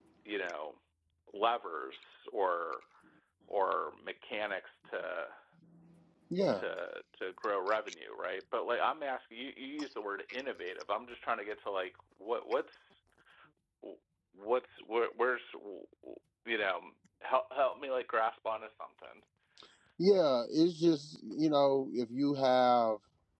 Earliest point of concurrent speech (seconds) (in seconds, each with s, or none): none